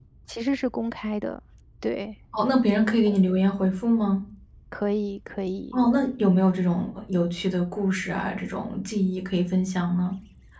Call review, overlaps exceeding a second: none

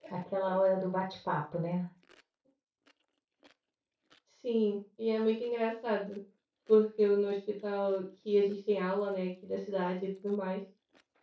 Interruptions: none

